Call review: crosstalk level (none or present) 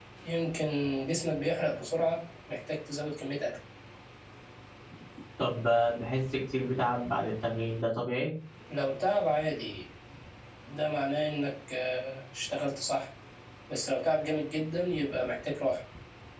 none